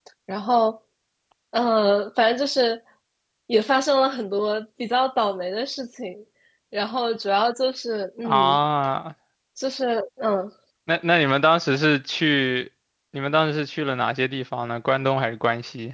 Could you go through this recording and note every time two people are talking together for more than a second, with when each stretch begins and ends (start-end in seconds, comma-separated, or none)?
none